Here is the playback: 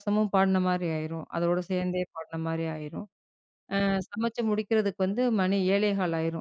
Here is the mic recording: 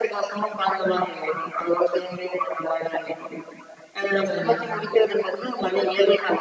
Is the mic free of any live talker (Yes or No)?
No